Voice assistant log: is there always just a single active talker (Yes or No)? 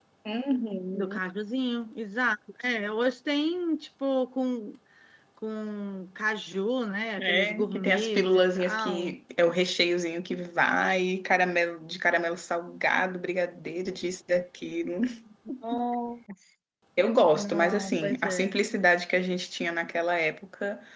No